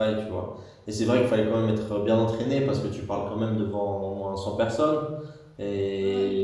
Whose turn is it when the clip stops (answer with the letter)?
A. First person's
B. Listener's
A